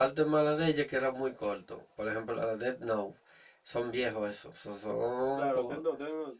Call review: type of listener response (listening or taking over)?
taking over